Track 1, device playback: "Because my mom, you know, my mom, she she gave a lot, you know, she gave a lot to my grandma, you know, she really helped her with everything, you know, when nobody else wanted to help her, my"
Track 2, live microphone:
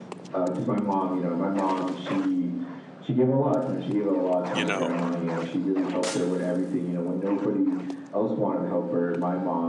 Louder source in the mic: echo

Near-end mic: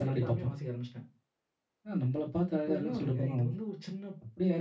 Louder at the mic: user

